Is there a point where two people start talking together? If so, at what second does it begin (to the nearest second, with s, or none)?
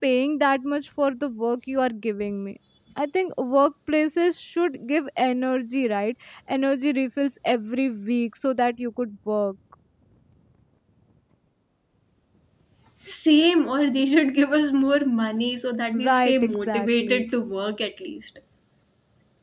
16 s